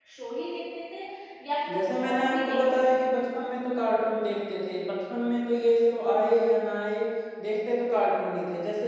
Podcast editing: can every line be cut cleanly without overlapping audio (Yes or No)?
No